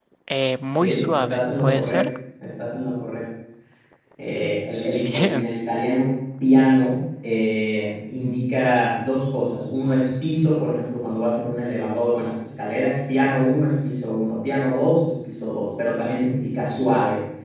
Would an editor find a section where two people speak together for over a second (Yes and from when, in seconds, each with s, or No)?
Yes, from 0.7 s